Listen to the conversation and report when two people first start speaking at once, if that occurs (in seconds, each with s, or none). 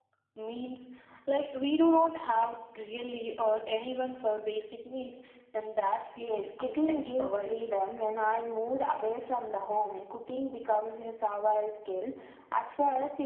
6.2 s